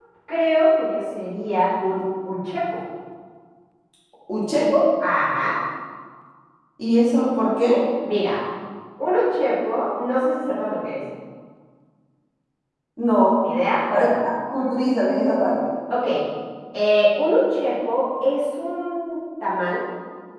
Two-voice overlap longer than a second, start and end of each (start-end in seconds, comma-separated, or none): none